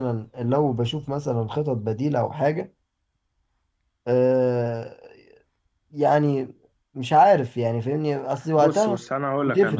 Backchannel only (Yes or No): No